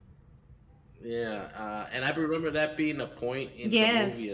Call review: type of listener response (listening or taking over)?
taking over